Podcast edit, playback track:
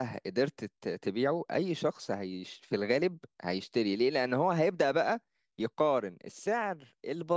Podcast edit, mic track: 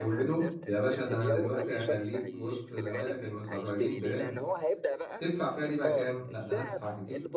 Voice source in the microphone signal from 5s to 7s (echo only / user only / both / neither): both